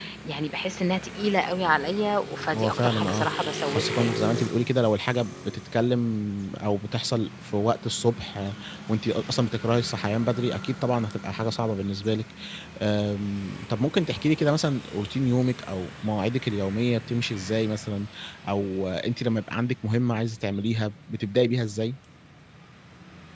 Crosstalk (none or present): present